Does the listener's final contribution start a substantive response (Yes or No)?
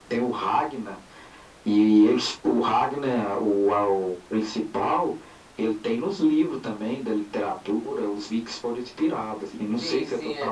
Yes